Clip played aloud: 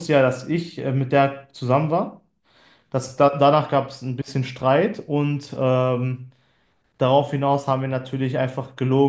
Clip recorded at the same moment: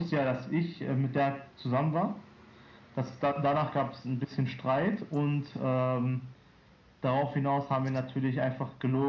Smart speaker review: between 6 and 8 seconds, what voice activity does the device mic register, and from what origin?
echo only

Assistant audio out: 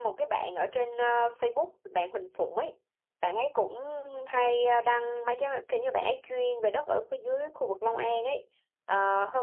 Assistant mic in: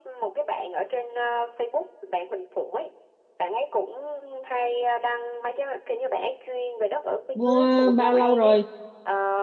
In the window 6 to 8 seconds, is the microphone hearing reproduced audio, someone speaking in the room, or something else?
both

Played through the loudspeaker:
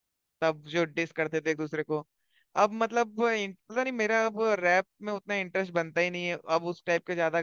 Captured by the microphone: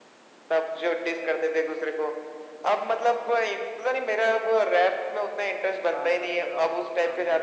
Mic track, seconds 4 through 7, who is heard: both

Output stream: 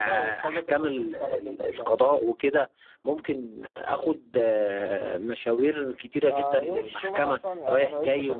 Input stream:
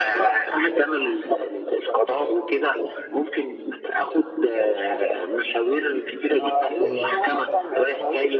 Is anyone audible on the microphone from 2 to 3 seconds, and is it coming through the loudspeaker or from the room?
echo only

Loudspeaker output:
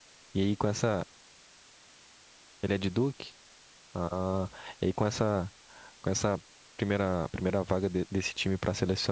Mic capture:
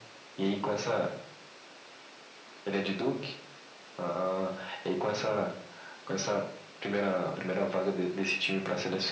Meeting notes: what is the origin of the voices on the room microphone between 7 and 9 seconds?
echo only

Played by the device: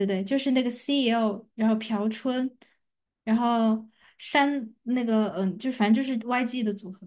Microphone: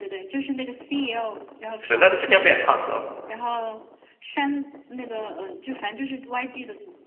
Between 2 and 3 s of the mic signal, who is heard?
both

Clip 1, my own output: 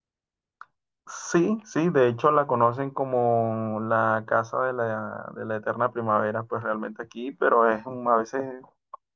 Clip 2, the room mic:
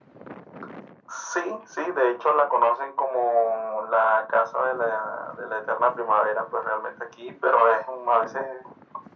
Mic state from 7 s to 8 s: echo only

